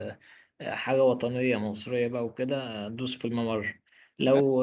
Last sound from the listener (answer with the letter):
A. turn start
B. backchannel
A